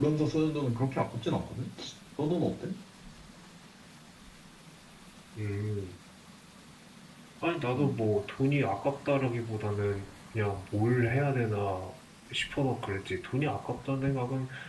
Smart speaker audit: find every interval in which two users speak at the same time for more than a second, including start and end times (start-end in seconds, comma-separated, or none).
none